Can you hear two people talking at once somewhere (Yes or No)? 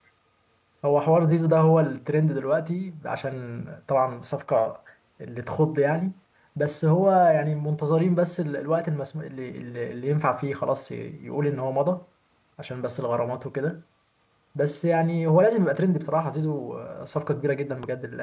No